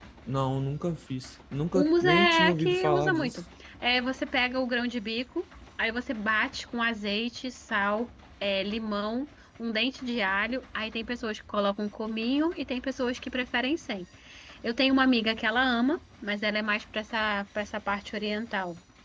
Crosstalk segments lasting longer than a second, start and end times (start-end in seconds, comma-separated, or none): 1.8-3.4